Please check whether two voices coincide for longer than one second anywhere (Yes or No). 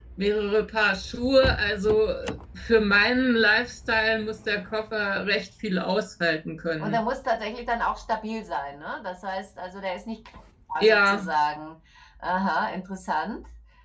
No